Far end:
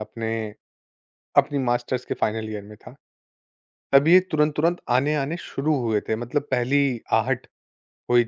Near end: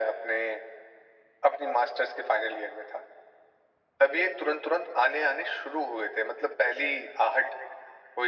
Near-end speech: none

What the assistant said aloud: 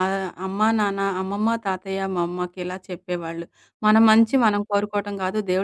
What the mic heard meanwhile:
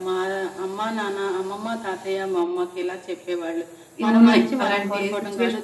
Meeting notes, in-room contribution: present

